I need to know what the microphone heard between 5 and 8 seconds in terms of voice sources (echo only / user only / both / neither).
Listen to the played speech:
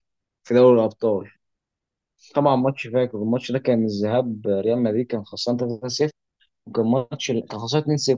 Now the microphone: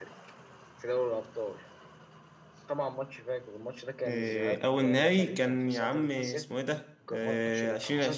both